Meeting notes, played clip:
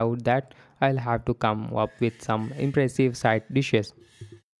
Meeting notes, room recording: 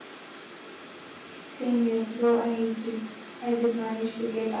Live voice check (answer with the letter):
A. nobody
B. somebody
B